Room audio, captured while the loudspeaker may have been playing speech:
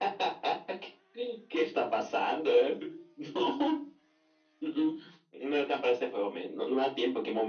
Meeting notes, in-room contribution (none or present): none